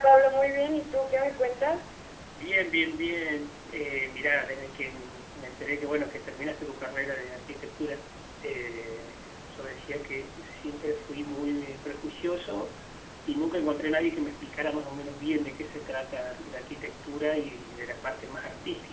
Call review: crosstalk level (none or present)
none